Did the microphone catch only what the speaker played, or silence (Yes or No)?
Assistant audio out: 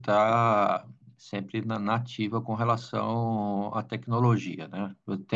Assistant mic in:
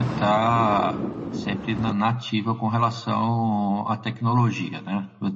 Yes